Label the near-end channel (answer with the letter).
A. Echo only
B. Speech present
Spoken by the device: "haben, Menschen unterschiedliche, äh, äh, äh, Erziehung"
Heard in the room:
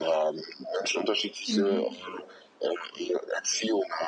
B